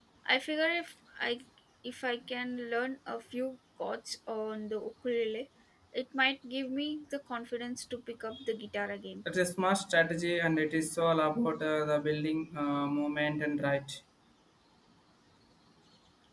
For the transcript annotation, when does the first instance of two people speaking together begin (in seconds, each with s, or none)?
none